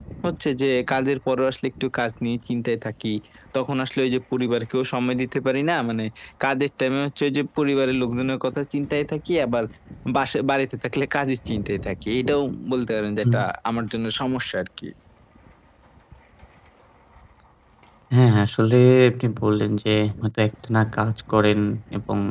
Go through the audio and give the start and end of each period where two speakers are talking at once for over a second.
none

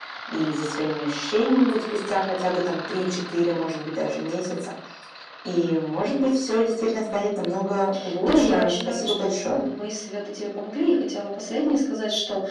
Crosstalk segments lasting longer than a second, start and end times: 8.2-9.7

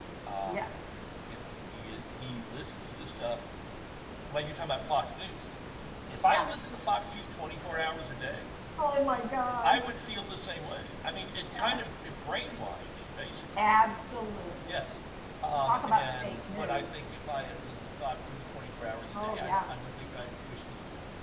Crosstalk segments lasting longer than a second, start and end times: 15.7-16.9

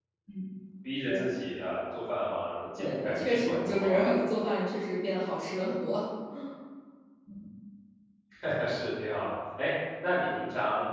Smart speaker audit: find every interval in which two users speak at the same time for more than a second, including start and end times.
2.8-4.1

